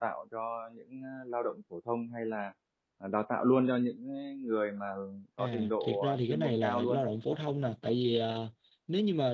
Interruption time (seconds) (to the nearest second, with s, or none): 5 s